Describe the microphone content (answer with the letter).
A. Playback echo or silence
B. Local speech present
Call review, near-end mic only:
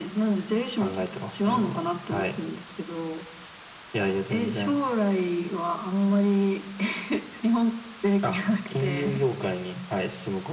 A